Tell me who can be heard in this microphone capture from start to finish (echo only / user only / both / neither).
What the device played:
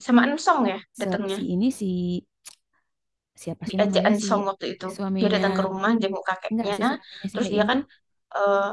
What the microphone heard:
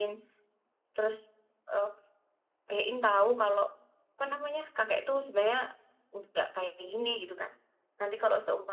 user only